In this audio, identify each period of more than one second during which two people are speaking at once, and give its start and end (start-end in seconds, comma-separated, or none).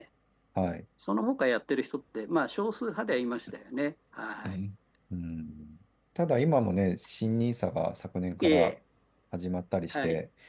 none